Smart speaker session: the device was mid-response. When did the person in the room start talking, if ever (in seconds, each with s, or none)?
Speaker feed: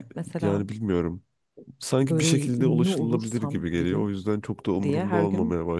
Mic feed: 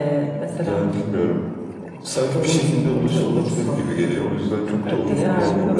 4.8 s